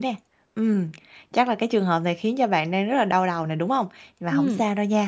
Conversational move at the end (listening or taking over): listening